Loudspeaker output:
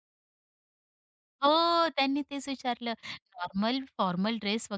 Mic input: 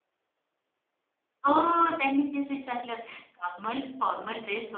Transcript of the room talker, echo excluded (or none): none